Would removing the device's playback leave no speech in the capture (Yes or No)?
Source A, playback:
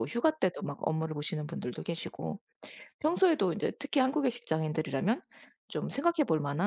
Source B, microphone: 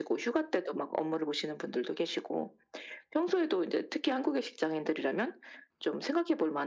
Yes